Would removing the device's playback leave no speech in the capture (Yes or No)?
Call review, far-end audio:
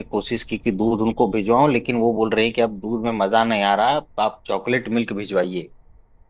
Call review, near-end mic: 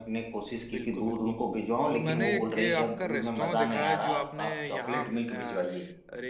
No